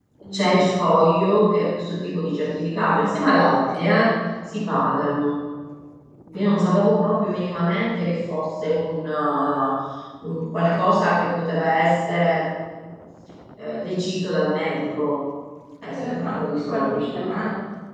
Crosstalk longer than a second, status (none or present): present